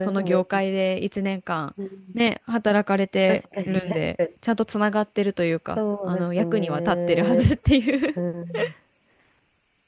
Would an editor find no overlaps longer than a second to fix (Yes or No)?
No